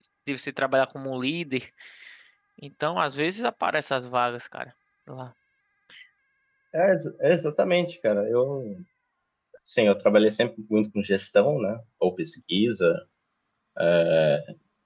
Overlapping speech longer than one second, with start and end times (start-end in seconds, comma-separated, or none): none